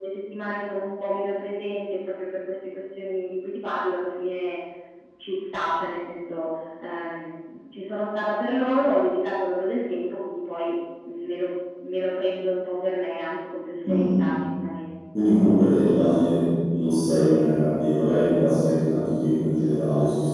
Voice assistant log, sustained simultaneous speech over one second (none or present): none